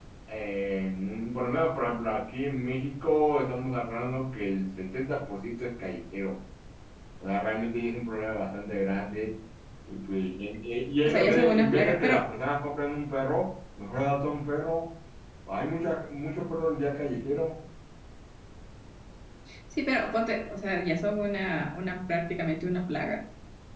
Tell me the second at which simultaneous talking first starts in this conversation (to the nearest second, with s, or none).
11 s